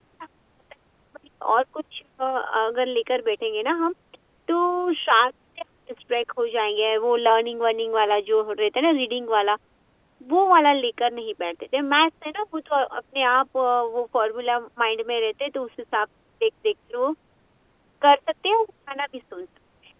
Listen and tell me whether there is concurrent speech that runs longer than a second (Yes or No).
No